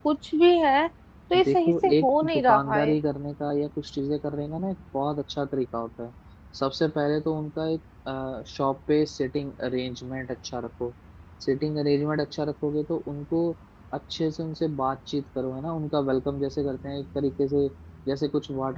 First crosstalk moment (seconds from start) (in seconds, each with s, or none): 1.3 s